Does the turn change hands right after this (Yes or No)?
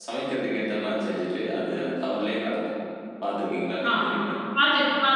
Yes